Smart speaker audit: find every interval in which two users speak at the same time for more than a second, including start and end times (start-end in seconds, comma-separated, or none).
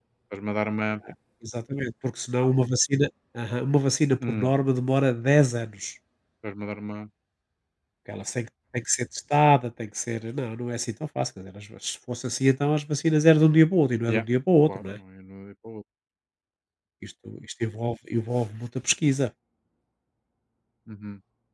none